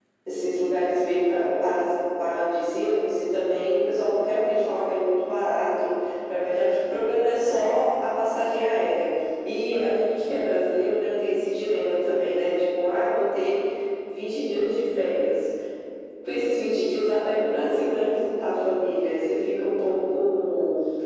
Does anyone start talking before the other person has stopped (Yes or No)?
No